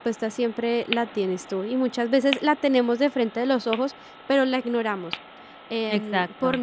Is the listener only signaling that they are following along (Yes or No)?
Yes